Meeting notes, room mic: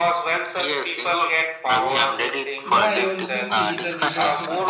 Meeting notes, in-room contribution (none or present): present